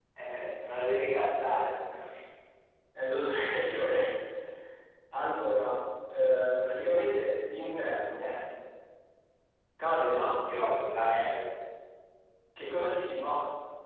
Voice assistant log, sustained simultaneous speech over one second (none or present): none